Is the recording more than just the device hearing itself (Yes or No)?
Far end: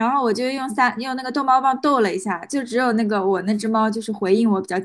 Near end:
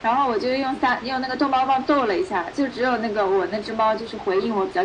No